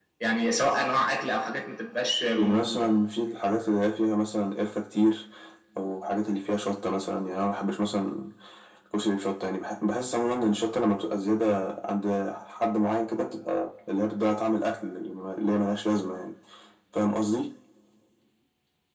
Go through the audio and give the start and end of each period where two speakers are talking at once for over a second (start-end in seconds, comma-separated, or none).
none